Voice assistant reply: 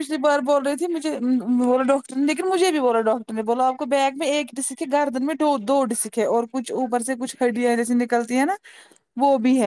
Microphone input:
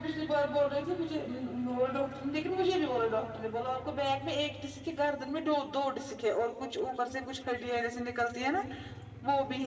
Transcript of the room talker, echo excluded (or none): none